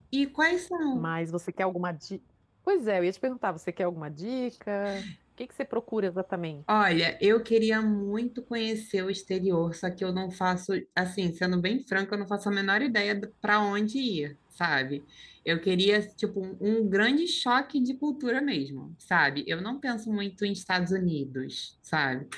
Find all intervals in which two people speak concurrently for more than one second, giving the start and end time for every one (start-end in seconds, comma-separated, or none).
none